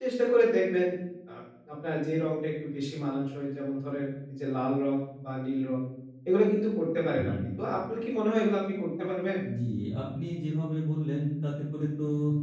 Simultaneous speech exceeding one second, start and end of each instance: none

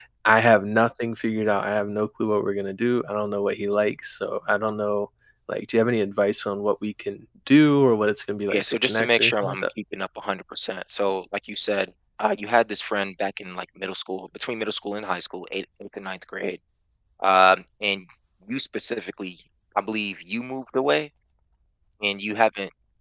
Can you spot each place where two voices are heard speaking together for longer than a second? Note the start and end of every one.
8.5-9.7

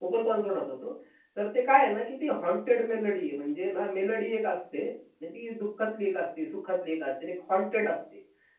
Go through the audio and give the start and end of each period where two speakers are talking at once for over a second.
none

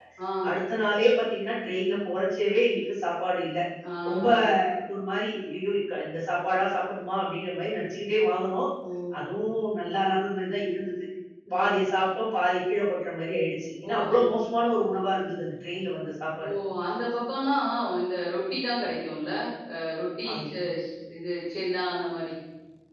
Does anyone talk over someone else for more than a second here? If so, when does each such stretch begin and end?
none

